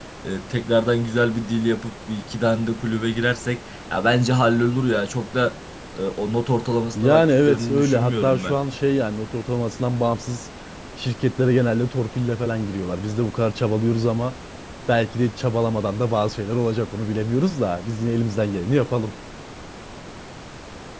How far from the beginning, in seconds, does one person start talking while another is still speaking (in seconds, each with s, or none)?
7.0 s